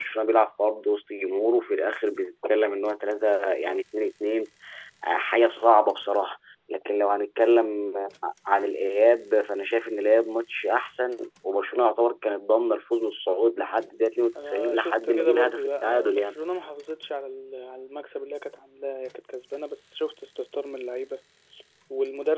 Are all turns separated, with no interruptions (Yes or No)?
No